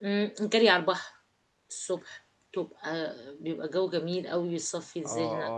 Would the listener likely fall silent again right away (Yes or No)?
No